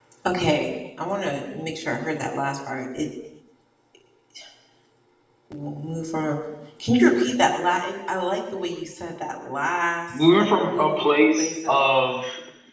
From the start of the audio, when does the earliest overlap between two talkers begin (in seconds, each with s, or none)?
10.1 s